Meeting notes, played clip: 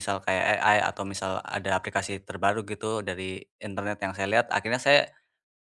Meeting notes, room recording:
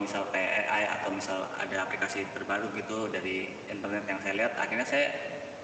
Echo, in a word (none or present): present